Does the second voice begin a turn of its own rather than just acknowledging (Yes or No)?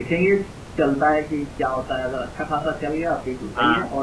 No